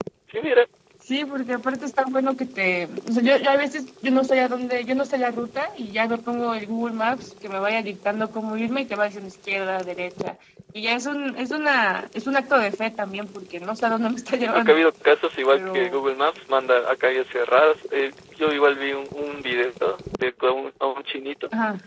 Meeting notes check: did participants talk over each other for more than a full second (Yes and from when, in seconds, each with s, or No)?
No